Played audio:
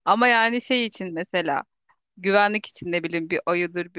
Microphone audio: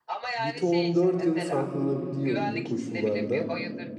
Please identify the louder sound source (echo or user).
user